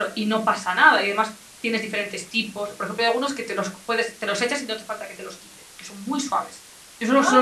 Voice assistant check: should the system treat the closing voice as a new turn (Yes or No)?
No